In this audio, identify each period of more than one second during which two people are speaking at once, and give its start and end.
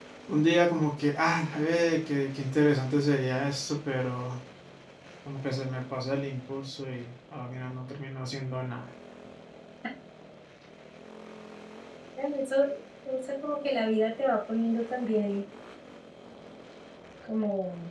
none

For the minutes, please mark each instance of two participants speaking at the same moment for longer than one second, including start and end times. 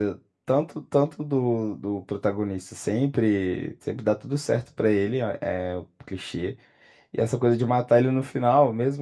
none

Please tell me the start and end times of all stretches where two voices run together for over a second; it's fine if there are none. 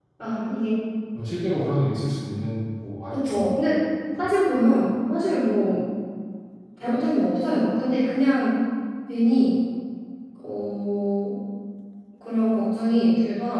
none

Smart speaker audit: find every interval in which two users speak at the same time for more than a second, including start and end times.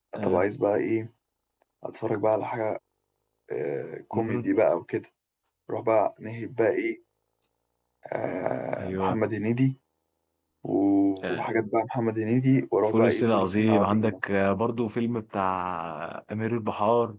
12.9-14.3

